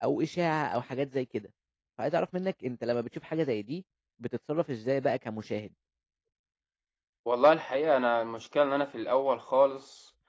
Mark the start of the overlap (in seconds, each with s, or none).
none